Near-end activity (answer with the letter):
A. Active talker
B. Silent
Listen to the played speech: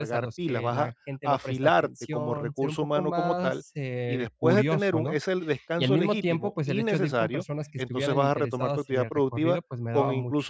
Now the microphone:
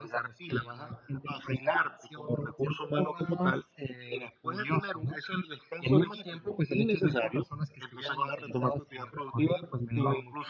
B